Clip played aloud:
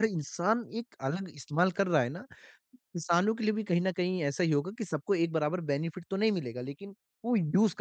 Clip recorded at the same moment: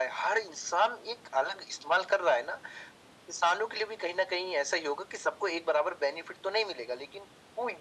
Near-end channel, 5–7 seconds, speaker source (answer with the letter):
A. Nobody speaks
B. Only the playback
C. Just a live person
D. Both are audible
B